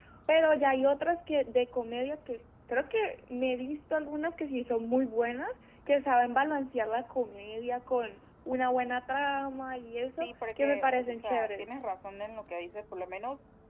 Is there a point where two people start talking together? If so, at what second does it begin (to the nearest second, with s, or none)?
10 s